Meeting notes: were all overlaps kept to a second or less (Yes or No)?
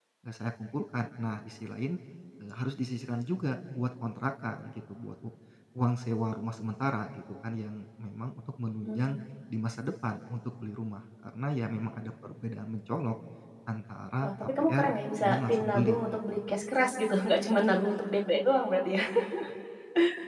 No